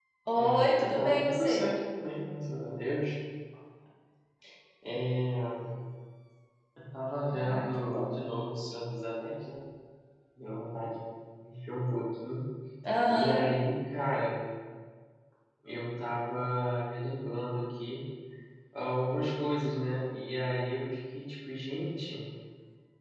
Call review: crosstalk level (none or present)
present